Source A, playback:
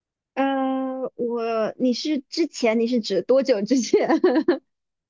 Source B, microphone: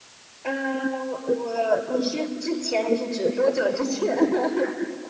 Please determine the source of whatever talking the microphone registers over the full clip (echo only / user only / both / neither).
echo only